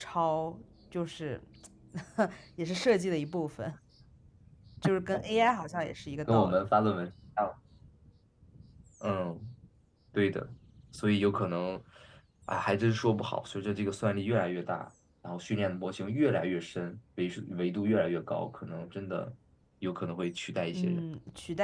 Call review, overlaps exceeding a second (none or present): none